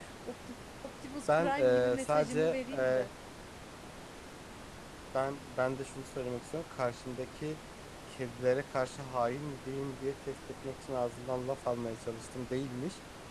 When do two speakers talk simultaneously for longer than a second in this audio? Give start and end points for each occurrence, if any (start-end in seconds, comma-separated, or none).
1.4-3.1